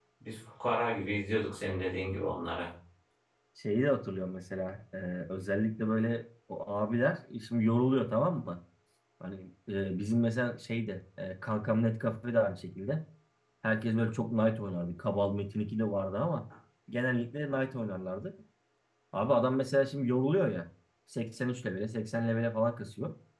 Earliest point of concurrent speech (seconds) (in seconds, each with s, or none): none